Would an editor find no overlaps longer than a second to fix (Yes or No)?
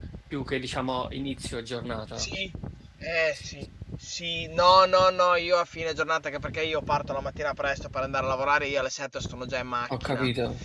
Yes